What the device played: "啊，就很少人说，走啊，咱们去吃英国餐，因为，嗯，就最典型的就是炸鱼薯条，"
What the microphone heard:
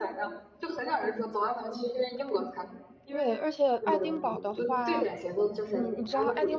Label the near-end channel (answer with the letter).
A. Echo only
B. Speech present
B